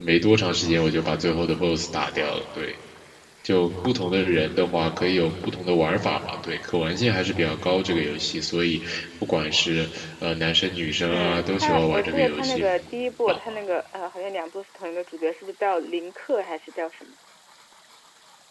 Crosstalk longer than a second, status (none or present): present